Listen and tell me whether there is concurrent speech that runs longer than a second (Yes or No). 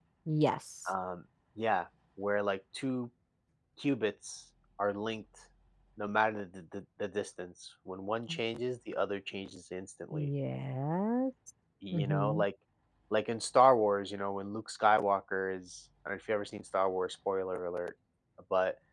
No